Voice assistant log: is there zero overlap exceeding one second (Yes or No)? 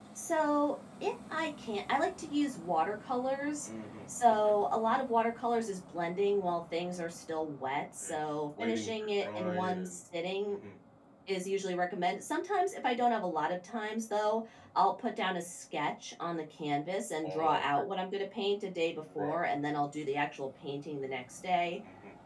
No